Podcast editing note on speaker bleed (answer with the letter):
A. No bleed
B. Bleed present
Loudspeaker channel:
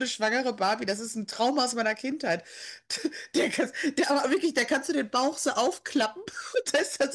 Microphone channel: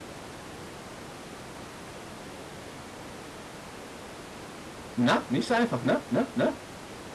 A